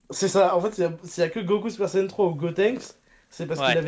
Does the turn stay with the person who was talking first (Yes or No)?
Yes